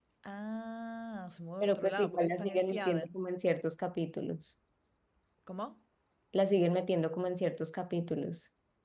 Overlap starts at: 1.6 s

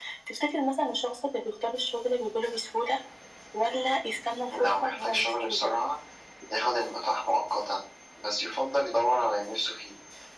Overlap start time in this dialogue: 4.5 s

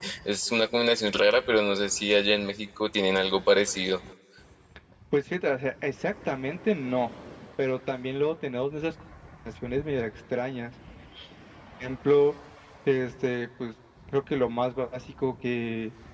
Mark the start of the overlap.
none

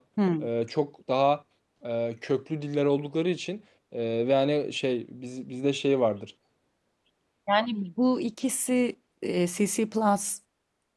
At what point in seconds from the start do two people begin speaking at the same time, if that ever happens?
none

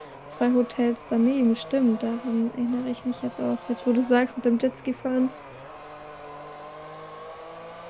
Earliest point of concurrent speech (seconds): none

